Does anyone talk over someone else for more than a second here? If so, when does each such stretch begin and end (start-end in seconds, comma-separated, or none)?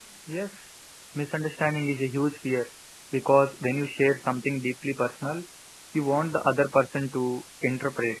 none